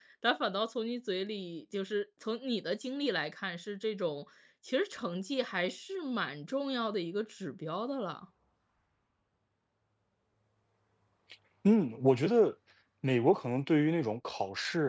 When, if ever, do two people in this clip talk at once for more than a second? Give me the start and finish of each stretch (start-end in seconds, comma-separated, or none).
none